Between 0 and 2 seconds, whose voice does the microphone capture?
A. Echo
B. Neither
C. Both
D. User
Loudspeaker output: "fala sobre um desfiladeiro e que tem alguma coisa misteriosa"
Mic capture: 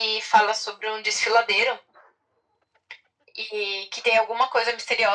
A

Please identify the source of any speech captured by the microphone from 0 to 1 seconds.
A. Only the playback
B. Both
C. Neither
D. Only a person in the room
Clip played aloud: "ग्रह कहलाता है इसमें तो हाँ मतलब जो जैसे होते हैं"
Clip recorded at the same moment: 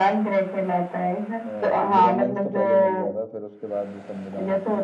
A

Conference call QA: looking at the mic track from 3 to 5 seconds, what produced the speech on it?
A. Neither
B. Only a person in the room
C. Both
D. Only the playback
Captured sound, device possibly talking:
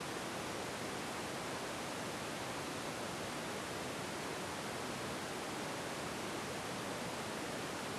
A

